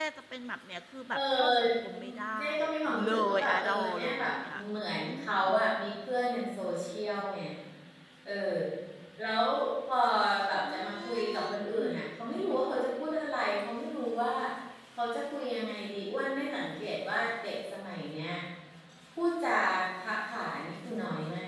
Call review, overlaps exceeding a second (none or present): present